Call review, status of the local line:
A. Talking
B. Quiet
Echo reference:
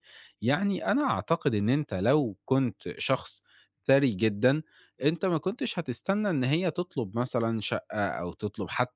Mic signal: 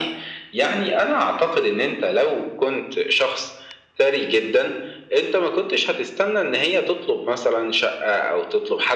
B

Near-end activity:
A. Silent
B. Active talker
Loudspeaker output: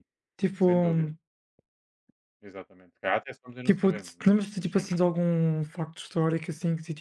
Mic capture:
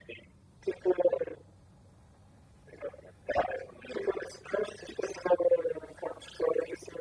A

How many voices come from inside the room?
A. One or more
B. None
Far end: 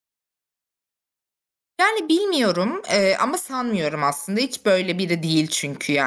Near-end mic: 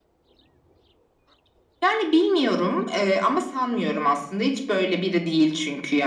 B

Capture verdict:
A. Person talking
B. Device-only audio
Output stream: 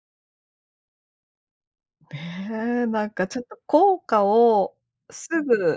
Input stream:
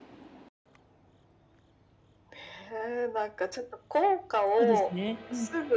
A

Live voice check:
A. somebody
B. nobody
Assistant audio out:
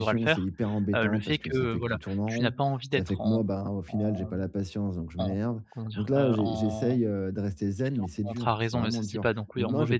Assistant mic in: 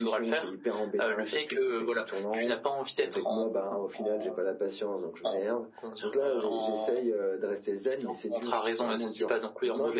B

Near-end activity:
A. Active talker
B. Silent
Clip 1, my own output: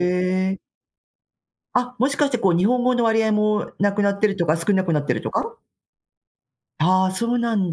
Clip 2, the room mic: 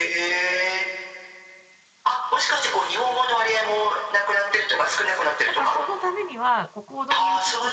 A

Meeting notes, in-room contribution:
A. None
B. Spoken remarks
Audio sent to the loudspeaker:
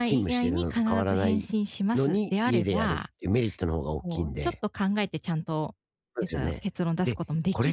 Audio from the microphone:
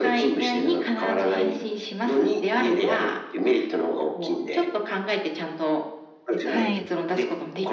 B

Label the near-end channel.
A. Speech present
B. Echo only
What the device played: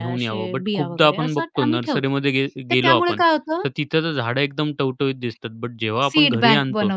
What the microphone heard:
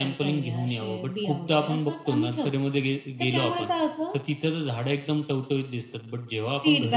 B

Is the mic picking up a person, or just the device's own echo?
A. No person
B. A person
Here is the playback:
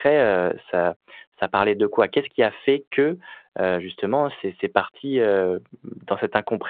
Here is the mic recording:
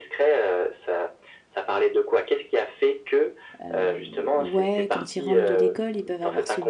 B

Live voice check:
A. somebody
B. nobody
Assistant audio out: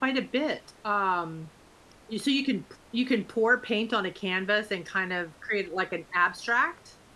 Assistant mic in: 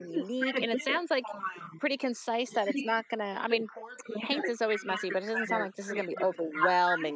A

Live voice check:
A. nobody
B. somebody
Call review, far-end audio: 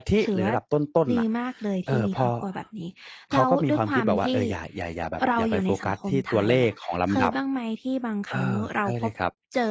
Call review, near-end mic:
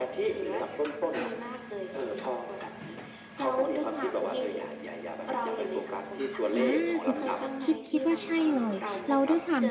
B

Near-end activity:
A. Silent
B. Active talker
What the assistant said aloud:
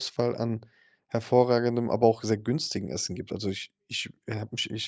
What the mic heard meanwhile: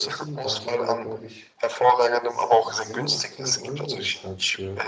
B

